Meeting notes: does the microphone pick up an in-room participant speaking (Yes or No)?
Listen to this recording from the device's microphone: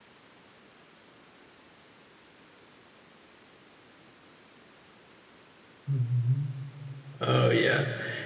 Yes